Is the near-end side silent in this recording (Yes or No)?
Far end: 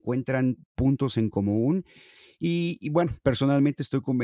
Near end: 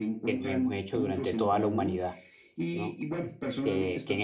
No